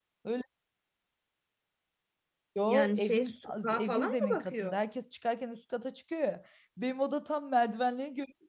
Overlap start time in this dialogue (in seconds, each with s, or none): 2.6 s